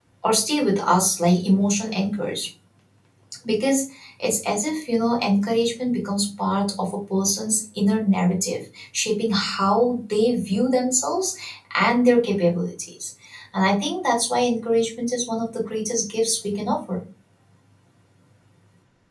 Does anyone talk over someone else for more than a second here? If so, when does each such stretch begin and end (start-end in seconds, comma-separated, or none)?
none